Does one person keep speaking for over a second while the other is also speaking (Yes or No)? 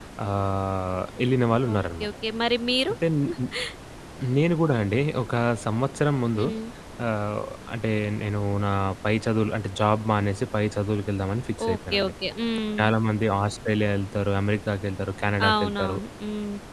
No